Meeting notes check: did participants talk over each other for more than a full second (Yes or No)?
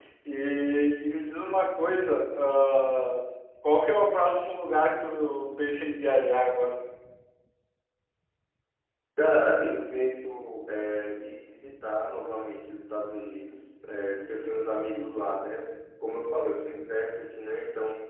No